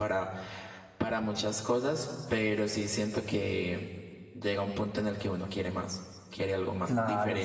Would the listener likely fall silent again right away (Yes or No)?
No